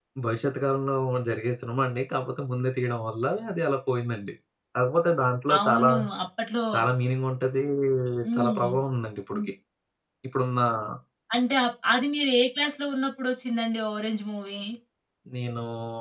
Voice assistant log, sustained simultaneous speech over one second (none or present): none